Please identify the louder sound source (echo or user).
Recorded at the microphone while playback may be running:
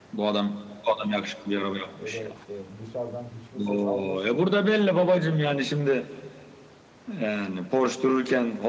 echo